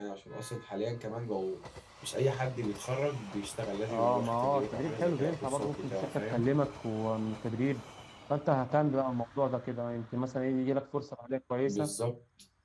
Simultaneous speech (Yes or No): Yes